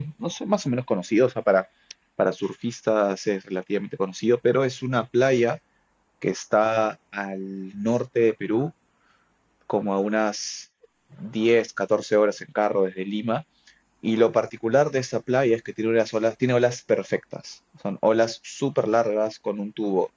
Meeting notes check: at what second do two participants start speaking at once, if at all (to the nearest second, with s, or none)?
none